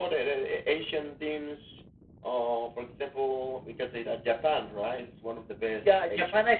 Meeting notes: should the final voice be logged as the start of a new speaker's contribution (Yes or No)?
Yes